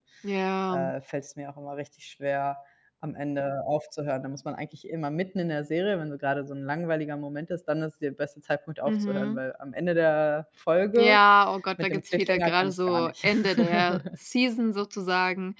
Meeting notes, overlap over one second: present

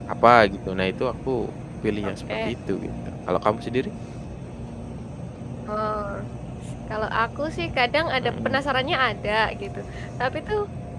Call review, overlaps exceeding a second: none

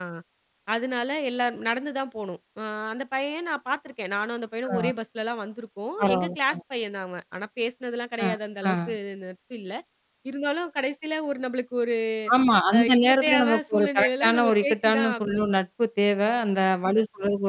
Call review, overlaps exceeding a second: present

